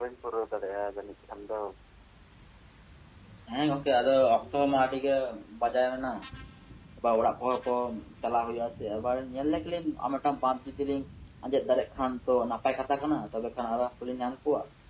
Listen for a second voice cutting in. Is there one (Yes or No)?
No